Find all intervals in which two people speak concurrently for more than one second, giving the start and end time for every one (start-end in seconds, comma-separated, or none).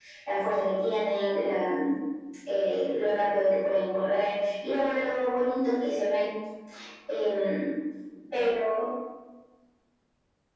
none